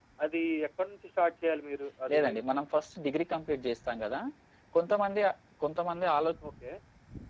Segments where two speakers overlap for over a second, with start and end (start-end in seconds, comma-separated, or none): none